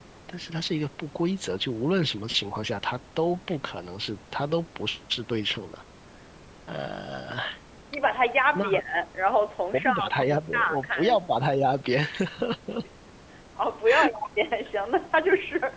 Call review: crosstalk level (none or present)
present